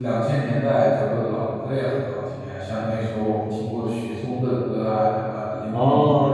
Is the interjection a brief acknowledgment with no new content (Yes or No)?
No